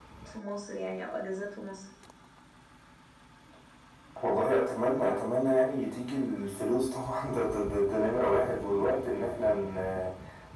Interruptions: none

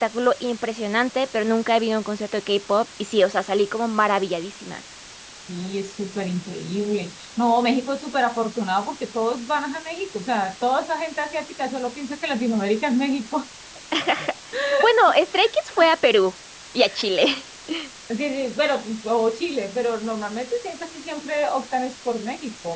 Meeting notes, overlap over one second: none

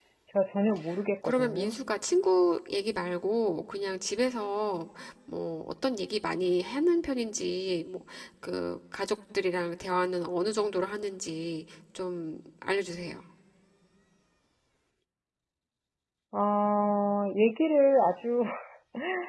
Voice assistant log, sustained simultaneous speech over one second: none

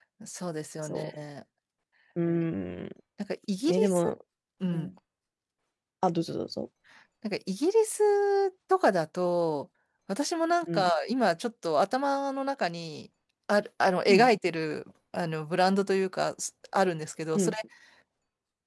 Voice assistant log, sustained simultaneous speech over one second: none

